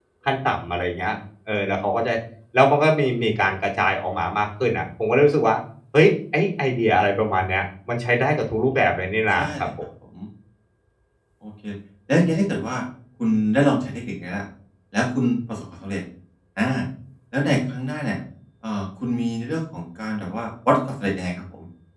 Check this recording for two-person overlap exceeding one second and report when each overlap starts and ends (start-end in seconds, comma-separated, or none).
none